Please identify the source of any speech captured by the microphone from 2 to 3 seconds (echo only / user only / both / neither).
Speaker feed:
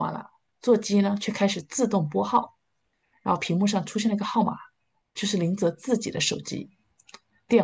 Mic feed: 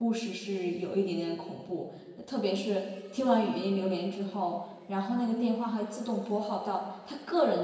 user only